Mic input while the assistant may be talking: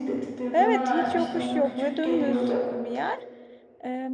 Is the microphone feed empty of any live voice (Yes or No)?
No